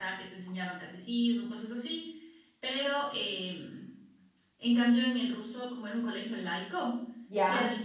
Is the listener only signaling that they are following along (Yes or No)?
Yes